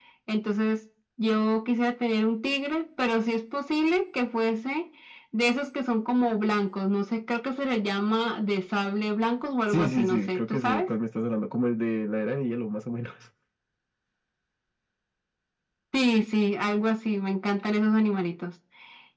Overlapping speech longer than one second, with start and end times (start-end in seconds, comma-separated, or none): 9.7-10.9